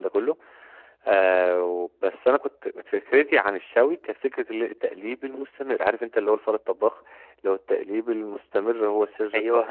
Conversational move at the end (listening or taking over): listening